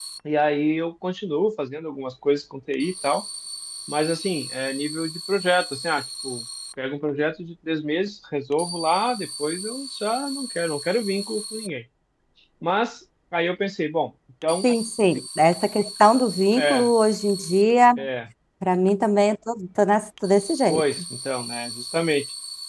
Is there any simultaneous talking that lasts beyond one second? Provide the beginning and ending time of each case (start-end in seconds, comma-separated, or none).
none